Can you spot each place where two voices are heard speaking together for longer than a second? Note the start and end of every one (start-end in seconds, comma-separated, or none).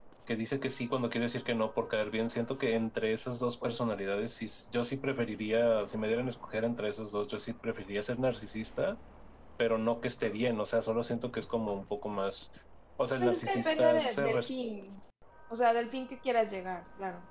13.2-14.5